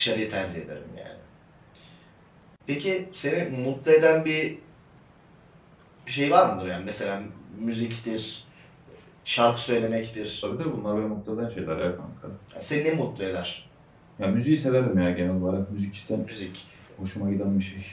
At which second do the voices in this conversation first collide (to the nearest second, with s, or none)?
none